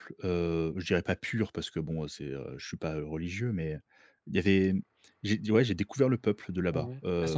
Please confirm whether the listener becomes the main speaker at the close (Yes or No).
Yes